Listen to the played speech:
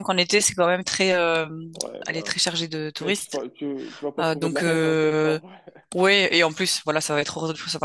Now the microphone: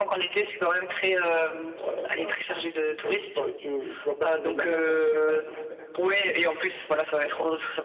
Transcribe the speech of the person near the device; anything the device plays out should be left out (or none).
none